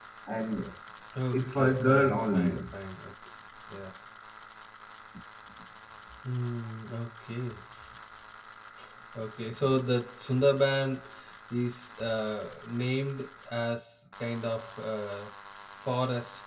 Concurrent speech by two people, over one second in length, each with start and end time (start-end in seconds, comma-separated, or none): 1.3-2.7